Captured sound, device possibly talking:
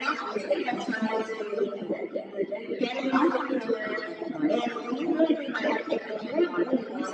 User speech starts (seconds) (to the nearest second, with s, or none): none